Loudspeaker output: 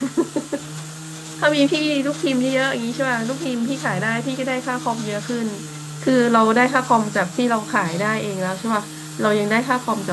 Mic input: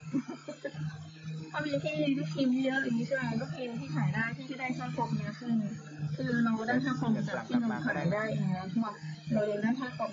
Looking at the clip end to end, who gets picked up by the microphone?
both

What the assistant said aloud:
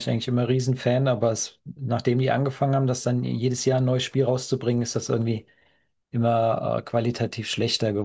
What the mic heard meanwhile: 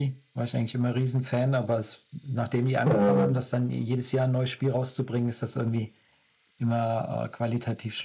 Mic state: both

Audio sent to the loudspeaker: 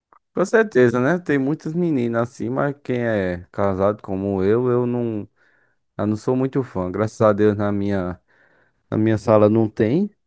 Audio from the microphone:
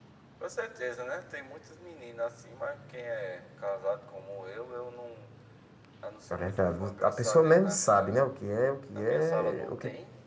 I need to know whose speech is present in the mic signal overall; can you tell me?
both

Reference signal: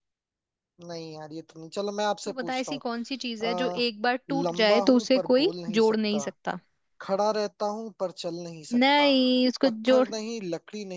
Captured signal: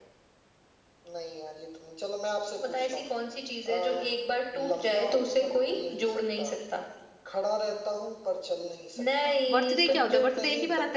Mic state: both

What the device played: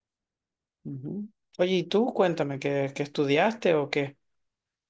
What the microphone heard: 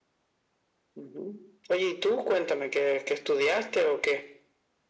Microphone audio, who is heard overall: echo only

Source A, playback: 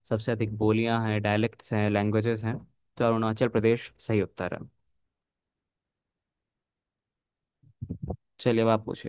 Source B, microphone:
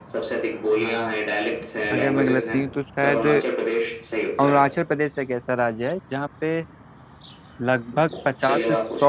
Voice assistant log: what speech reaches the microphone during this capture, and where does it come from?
both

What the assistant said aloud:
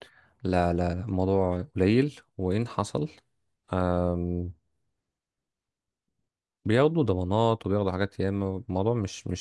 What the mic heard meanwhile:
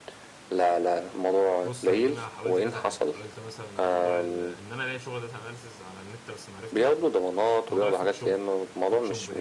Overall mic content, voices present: both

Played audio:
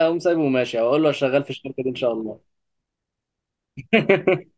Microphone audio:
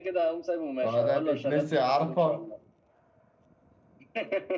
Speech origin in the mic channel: both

